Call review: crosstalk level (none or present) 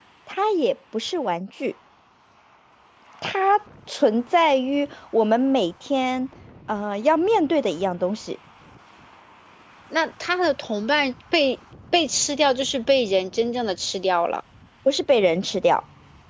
none